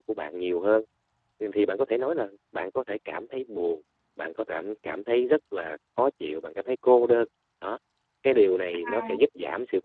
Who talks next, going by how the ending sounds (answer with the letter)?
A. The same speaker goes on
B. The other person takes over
A